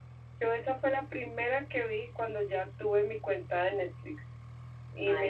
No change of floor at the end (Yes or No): Yes